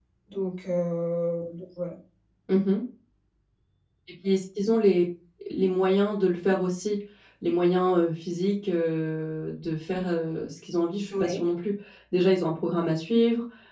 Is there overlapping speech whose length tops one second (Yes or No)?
No